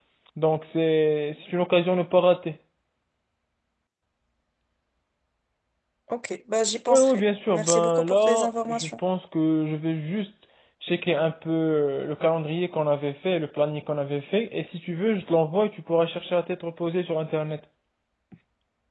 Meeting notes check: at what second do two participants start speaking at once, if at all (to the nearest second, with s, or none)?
7 s